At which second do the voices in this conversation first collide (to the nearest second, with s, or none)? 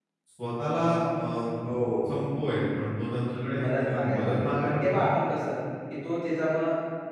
3 s